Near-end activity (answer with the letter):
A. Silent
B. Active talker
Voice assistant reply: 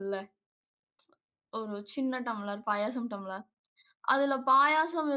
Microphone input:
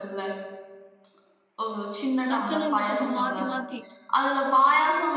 B